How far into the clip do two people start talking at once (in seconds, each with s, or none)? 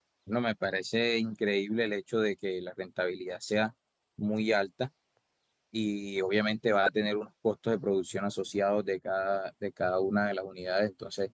none